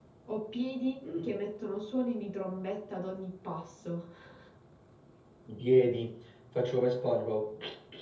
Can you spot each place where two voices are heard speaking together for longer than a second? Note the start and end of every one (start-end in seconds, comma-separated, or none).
none